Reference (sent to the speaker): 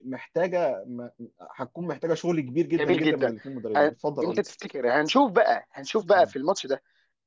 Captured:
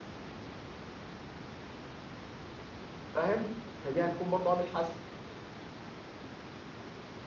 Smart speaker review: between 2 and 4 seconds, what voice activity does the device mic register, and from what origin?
user only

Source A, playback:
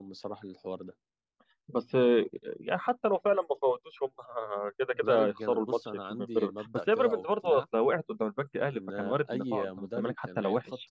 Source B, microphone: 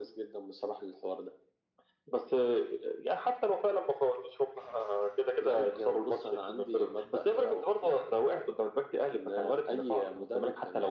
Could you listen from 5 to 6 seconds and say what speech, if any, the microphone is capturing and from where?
echo only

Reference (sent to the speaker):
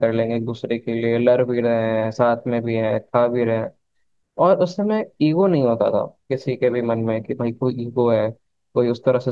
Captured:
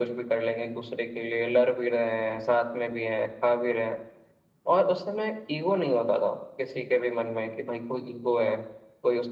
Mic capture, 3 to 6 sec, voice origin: echo only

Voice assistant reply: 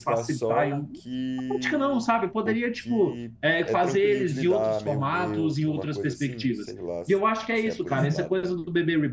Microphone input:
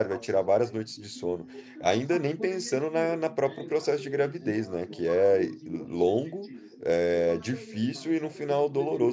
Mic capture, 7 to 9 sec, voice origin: both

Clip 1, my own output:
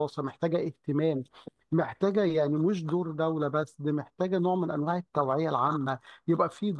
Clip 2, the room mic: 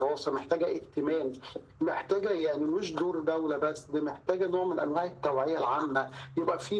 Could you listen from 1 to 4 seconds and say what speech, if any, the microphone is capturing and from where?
echo only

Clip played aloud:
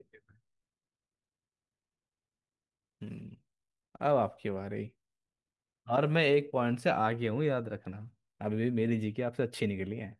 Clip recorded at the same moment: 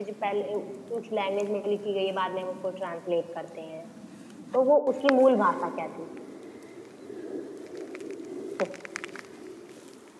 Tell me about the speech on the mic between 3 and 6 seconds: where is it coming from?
user only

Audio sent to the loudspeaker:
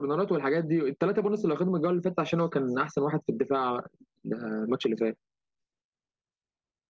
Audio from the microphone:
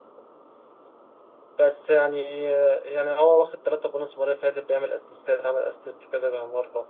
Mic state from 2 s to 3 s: user only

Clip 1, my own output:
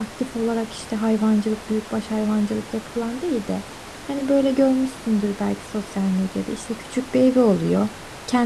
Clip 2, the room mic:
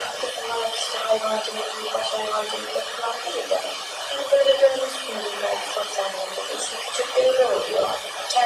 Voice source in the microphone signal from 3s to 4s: echo only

